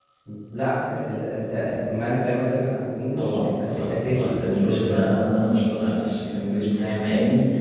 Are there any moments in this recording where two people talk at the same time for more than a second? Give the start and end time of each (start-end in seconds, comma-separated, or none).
3.2-5.2